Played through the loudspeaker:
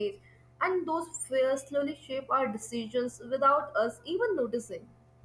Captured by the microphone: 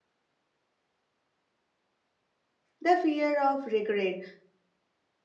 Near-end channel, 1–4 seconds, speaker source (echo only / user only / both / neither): user only